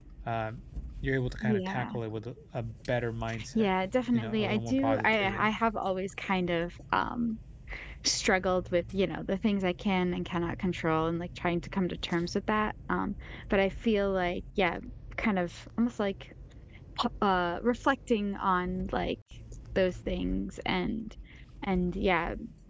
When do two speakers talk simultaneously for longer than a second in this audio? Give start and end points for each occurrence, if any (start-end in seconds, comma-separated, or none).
4.1-5.5